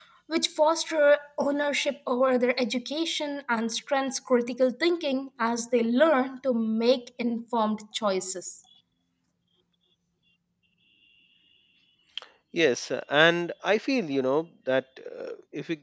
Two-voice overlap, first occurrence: none

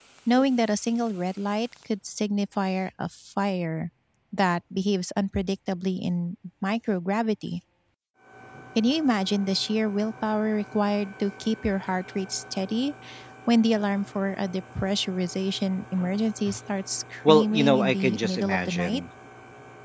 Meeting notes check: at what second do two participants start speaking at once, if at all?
17.3 s

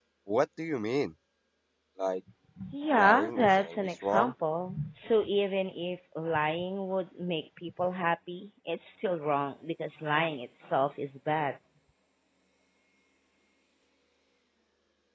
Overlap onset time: 3.0 s

